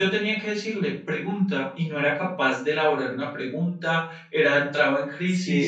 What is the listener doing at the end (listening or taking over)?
taking over